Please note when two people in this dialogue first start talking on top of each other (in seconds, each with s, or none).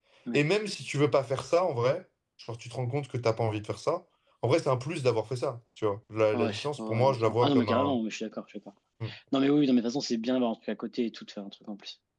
6.3 s